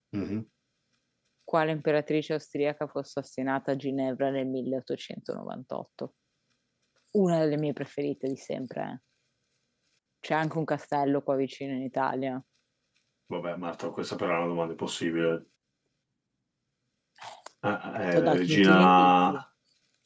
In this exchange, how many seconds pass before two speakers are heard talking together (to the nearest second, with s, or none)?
18 s